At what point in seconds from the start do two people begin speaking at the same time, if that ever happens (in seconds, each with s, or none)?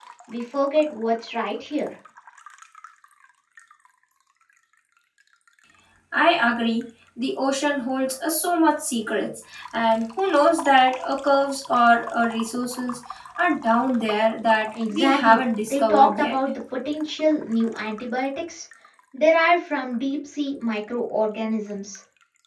14.8 s